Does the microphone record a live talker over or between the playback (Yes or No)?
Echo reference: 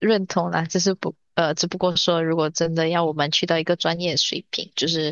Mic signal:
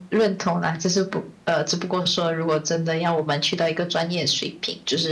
No